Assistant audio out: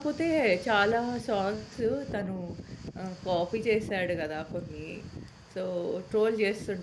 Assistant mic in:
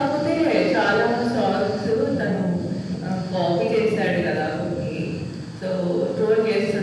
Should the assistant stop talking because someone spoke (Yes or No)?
No